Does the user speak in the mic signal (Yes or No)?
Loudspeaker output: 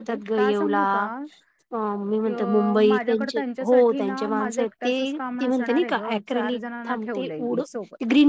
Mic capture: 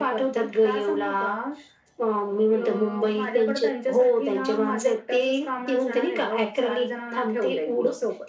No